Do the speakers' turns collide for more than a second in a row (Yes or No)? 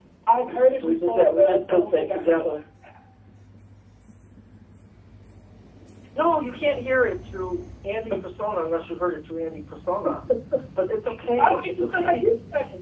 Yes